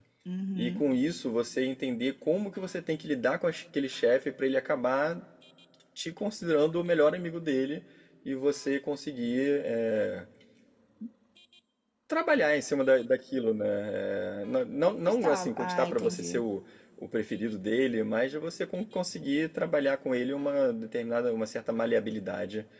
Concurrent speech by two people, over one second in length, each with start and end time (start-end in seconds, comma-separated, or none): 15.0-16.4